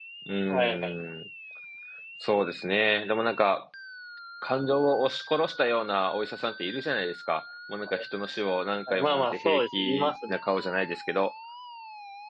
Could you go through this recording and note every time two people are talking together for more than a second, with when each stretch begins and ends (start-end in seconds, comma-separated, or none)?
8.9-10.3